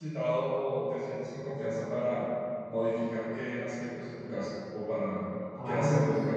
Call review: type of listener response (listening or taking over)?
taking over